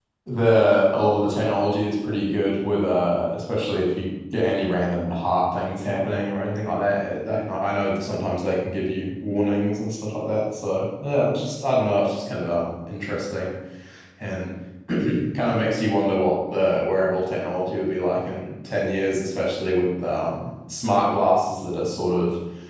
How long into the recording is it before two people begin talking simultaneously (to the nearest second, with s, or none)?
none